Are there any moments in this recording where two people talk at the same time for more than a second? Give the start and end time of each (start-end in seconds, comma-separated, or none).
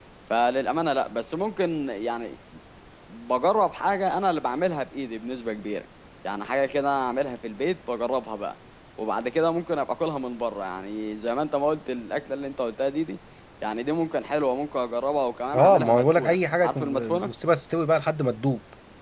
15.5-17.3